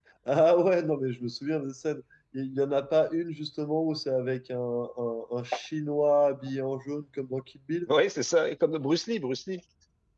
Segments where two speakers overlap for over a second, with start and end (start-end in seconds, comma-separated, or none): none